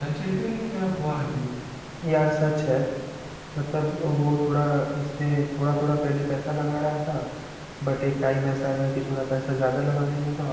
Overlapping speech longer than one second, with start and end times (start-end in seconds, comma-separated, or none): none